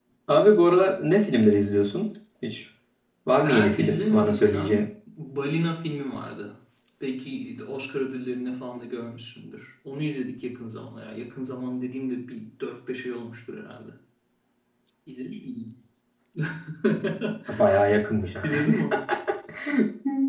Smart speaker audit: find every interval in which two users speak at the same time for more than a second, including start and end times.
3.4-4.9

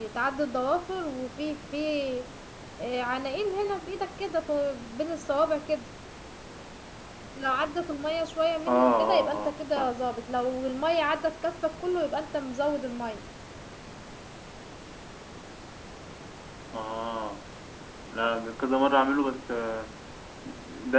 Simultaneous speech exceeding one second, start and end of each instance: 8.7-9.9

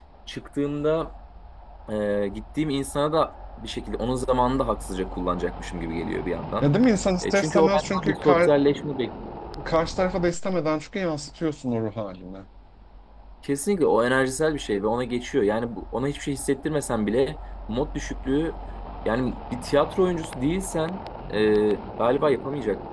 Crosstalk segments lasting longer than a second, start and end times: 7.2-8.5

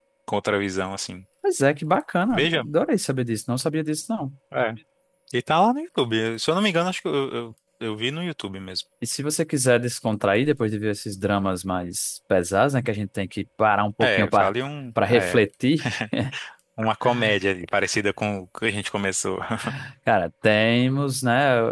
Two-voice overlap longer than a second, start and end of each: none

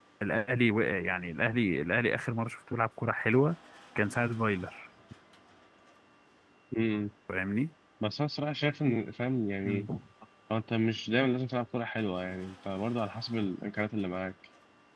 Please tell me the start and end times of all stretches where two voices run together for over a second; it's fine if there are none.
none

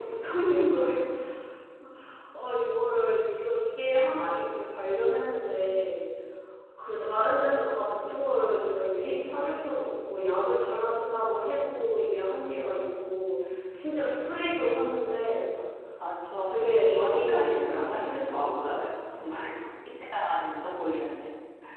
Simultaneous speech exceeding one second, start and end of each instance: 16.3-18.8

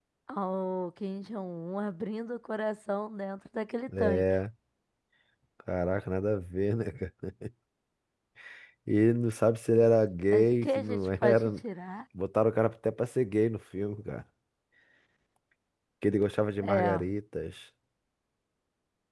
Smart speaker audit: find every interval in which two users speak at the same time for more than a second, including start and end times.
10.3-11.6

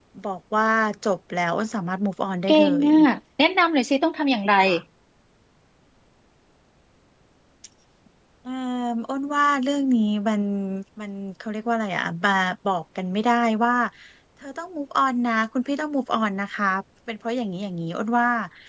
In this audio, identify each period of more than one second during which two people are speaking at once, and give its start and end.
none

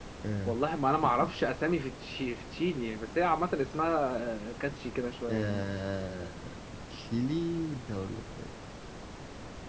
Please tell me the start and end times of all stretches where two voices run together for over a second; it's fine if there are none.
none

